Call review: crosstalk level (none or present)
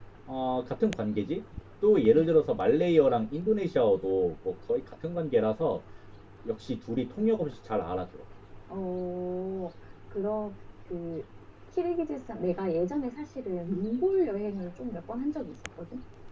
none